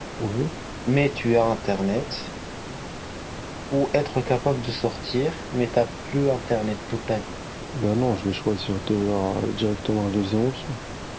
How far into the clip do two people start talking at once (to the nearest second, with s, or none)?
none